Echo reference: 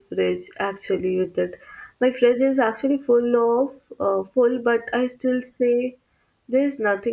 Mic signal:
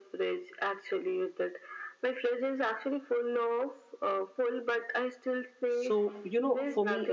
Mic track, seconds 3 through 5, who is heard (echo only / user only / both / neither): echo only